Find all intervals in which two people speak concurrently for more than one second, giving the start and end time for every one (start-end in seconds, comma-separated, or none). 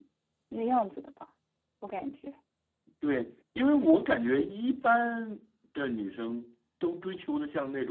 none